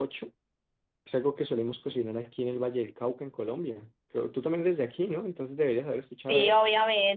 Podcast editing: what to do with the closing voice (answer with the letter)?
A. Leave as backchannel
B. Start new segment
B